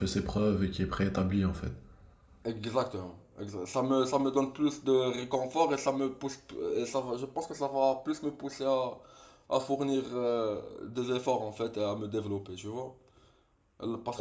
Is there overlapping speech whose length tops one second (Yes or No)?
No